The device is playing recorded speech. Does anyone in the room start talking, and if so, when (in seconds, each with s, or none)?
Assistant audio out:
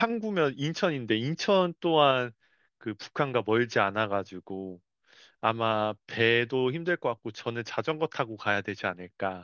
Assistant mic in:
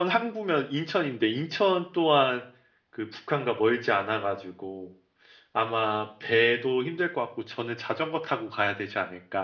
none